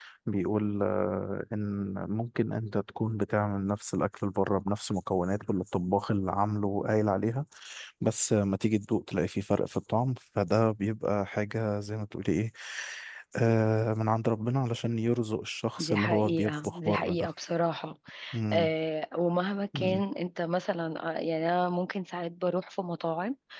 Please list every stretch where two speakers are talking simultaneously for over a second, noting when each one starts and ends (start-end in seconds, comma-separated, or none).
15.8-17.3